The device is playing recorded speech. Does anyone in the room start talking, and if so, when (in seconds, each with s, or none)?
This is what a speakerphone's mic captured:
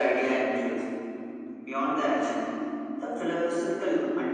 none